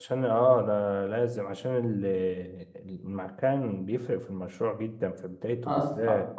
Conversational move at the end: taking over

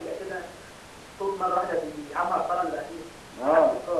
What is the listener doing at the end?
taking over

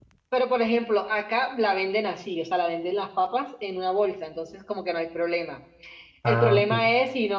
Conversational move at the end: listening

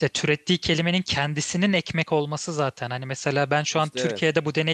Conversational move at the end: listening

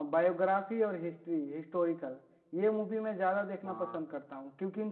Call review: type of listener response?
listening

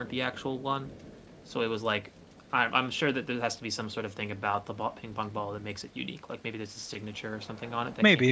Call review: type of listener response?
taking over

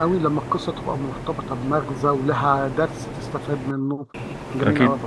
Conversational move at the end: taking over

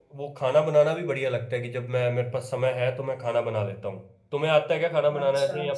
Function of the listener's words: taking over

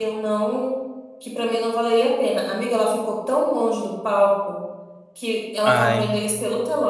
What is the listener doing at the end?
listening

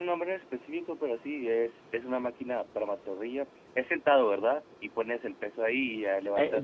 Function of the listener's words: taking over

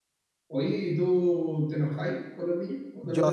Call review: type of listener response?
taking over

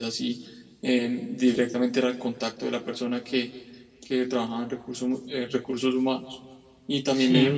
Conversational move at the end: listening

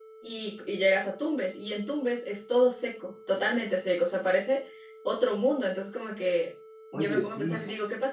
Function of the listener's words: listening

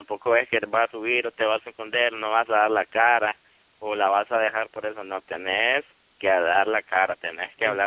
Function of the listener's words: taking over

